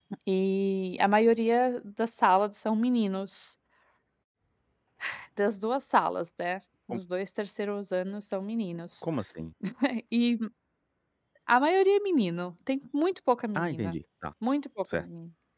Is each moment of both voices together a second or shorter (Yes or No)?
Yes